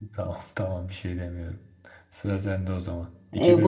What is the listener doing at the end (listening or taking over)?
taking over